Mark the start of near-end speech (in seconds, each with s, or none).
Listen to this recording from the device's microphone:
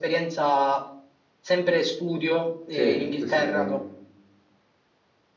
2.7 s